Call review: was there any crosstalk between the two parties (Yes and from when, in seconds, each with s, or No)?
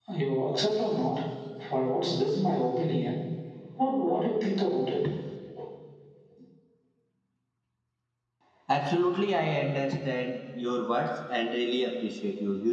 No